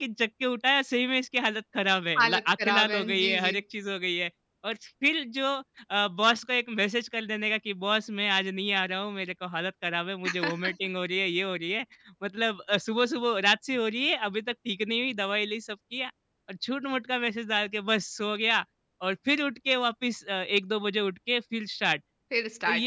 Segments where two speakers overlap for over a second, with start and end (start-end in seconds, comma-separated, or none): 2.2-3.6